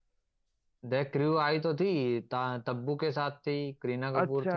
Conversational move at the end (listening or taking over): taking over